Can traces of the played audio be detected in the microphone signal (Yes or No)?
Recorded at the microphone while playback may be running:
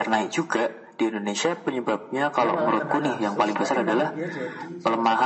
Yes